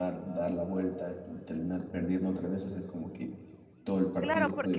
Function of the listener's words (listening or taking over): taking over